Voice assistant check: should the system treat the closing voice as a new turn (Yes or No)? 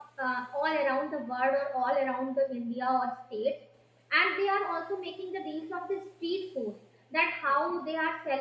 No